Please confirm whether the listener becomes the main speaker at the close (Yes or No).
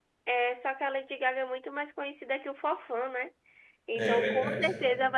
No